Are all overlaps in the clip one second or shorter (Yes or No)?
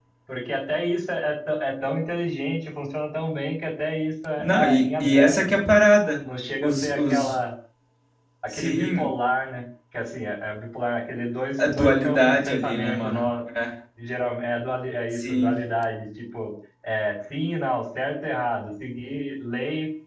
No